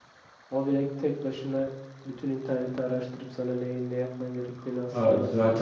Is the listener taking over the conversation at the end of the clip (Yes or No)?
Yes